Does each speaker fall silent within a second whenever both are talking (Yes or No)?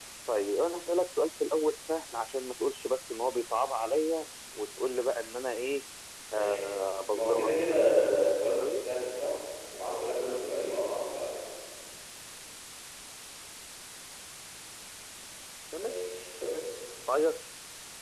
No